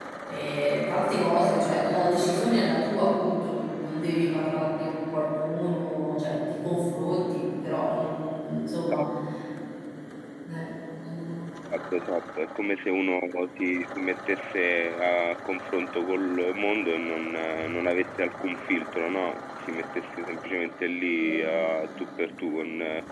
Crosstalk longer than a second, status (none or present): none